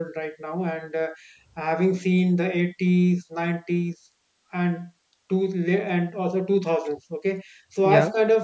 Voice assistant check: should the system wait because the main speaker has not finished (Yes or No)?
Yes